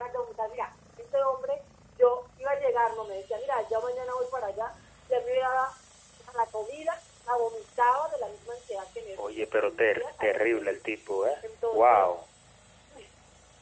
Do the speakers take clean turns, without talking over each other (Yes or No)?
No